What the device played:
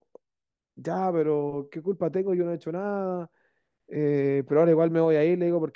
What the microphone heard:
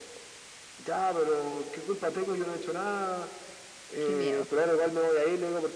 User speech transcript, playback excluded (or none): Qué miedo.